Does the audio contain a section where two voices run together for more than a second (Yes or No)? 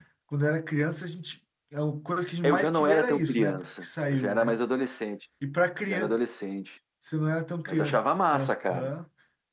Yes